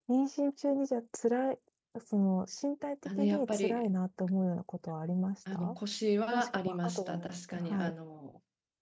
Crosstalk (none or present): present